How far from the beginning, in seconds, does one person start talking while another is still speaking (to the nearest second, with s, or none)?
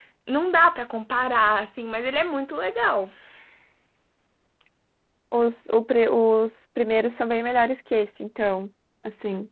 none